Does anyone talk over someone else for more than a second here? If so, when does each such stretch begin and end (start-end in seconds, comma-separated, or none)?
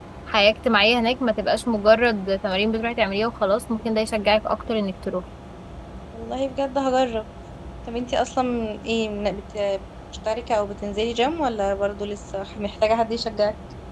none